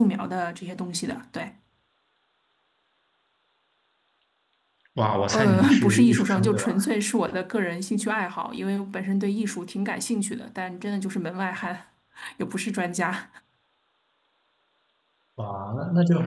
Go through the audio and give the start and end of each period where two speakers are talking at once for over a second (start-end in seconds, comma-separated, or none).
5.3-6.7